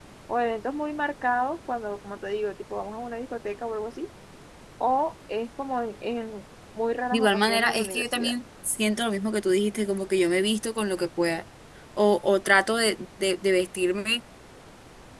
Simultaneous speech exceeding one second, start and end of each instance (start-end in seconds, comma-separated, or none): 7.1-8.3